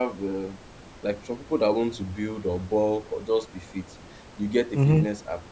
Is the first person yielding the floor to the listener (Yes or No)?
No